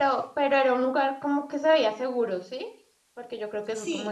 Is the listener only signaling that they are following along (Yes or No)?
No